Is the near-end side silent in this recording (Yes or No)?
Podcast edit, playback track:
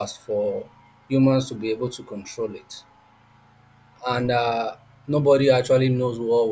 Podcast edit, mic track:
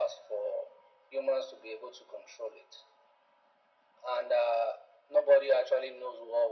Yes